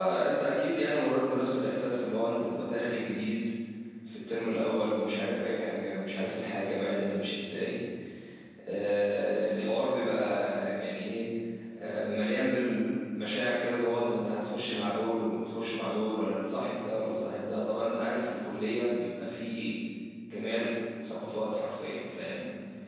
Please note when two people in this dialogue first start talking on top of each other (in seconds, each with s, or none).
none